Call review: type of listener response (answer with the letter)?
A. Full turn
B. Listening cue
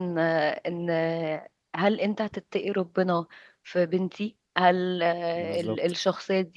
B